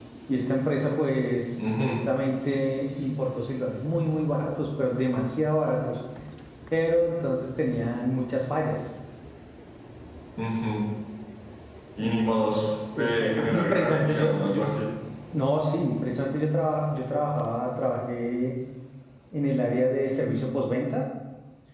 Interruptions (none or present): present